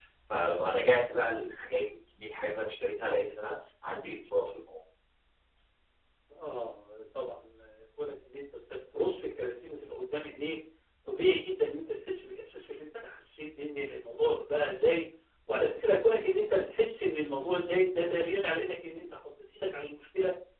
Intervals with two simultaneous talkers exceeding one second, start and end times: none

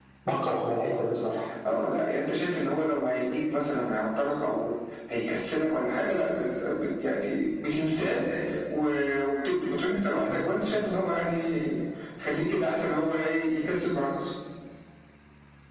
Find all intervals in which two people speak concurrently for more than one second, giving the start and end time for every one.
none

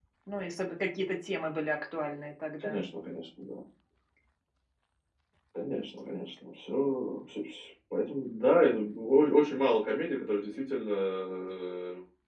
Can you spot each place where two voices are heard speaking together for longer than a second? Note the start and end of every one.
none

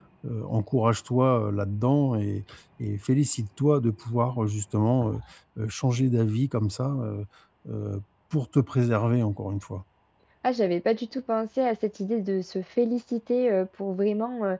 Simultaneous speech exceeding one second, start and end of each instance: none

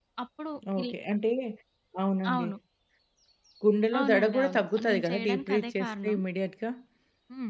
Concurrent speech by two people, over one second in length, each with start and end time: 4.0-6.2

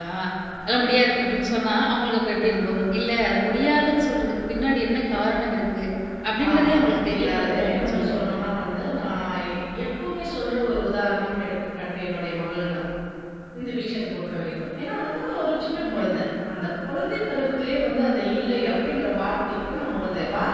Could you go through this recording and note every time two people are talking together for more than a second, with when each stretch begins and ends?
6.5-8.4

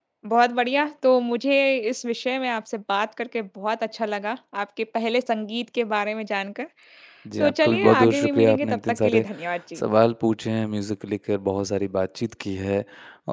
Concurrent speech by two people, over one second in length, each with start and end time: 7.4-9.2

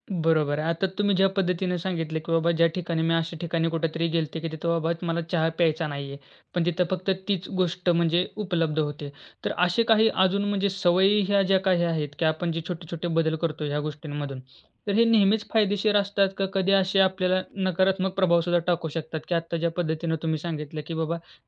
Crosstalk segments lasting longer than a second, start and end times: none

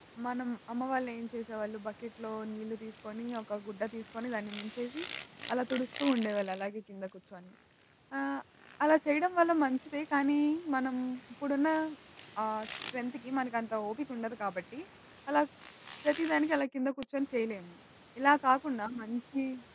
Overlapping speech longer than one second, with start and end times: none

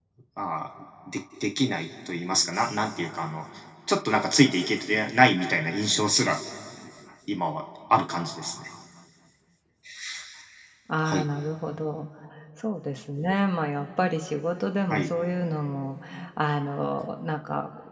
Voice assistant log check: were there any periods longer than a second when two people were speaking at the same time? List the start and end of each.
none

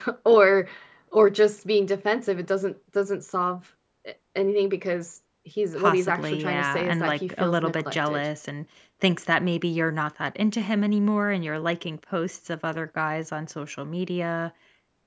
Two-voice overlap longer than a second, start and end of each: 5.7-8.2

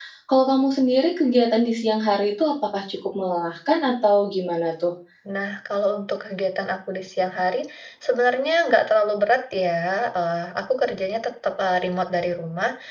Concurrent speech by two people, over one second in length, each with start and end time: none

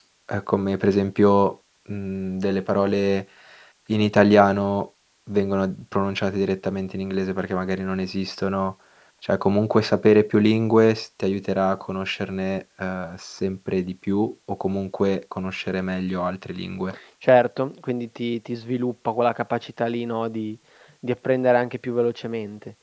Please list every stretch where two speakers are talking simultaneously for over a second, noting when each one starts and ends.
none

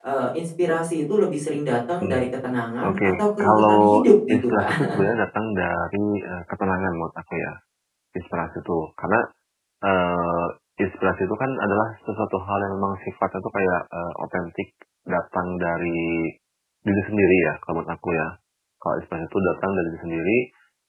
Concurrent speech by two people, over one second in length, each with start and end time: 2.9-4.8

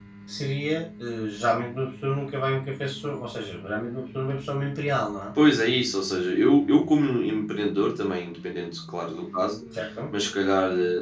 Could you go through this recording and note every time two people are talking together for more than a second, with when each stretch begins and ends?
none

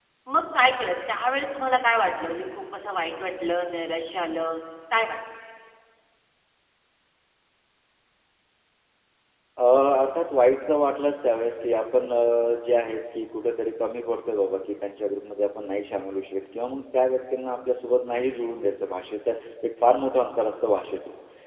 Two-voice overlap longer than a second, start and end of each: none

